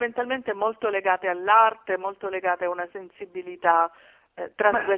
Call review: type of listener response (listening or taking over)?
taking over